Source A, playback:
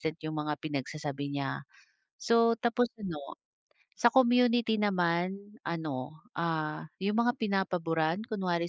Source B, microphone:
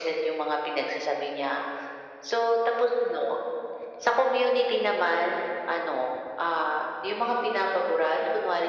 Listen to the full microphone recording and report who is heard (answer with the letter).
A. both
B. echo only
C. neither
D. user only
B